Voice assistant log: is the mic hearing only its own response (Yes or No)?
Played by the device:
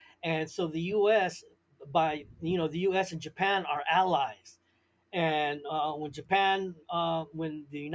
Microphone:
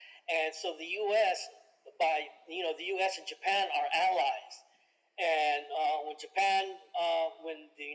Yes